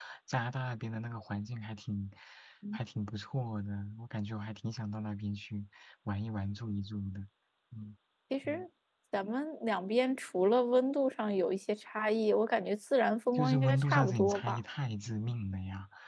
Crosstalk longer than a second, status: present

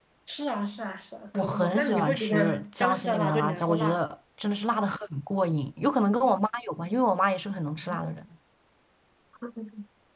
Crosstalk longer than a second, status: present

